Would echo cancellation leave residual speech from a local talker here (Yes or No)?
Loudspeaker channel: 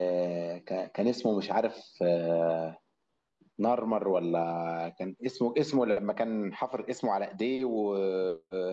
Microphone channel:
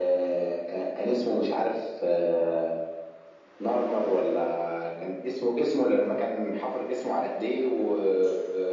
No